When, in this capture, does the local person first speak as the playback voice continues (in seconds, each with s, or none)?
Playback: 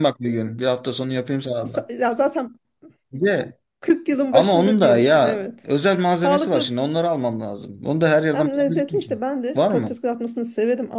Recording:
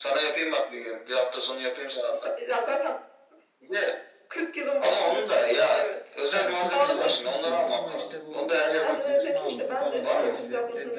6.3 s